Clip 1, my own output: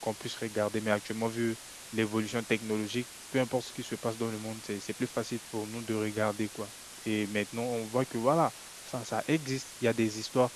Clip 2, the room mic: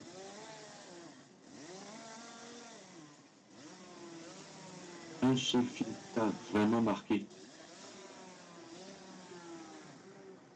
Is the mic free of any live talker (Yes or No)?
No